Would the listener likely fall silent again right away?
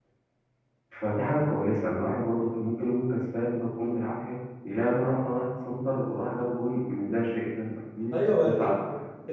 No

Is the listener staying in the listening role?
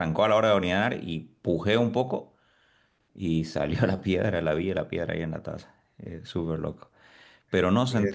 Yes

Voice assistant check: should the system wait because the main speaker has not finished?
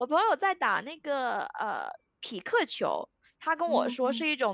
Yes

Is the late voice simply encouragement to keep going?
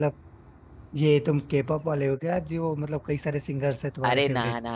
No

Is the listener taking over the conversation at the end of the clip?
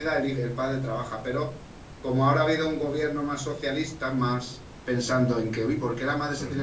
No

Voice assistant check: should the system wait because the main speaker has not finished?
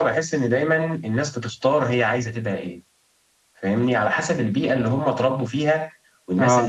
Yes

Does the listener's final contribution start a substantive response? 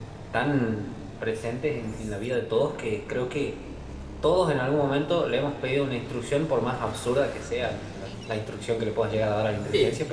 Yes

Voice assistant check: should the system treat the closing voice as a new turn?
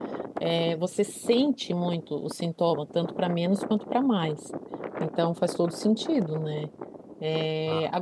No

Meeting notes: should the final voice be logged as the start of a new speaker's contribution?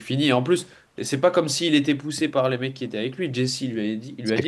Yes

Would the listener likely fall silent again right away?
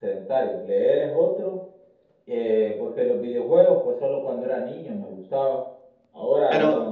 Yes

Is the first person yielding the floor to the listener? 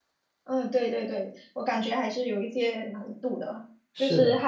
No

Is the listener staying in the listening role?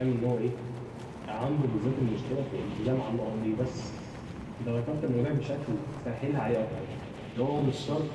Yes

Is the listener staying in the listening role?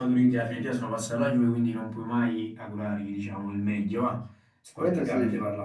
No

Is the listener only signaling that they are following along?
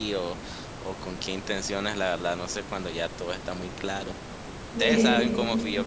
Yes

